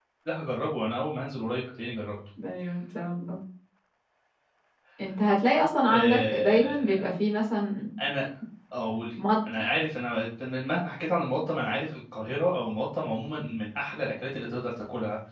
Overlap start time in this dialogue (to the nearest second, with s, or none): 6 s